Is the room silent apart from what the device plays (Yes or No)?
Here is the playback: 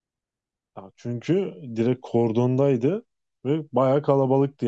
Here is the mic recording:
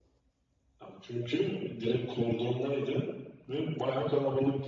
Yes